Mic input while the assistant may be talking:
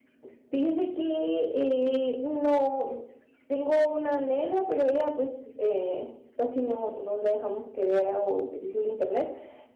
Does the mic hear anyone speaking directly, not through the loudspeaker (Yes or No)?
No